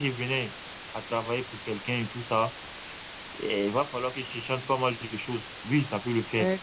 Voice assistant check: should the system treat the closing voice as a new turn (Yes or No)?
Yes